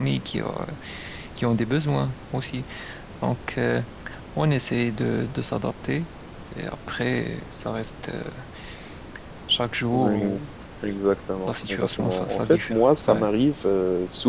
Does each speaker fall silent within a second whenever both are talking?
No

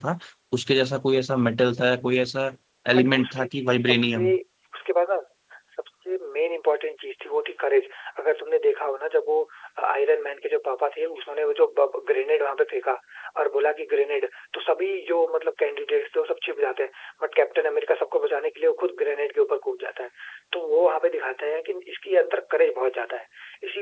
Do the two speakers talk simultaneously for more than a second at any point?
Yes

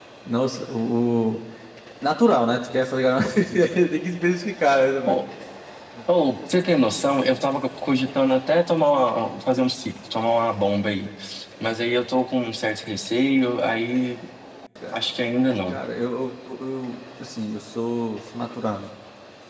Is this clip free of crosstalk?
Yes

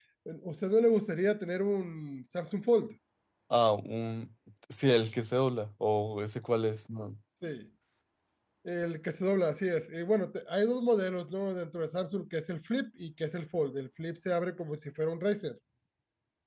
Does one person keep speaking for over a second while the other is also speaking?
No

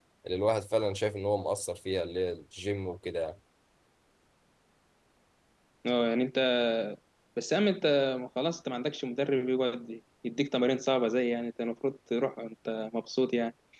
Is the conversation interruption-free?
Yes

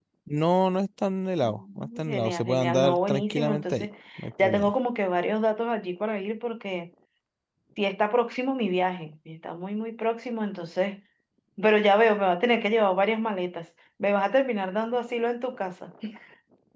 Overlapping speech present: Yes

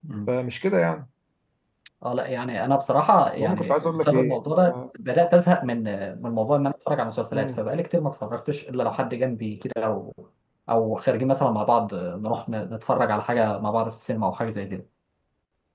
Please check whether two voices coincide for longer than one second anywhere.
Yes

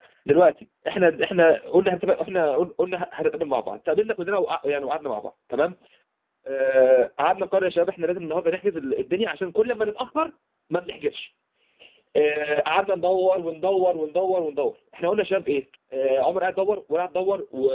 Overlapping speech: No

